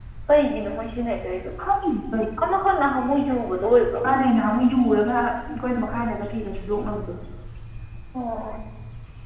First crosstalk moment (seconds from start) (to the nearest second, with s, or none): none